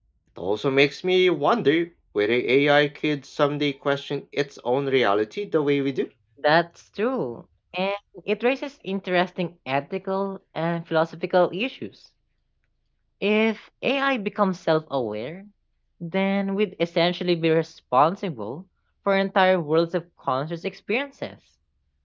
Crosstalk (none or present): none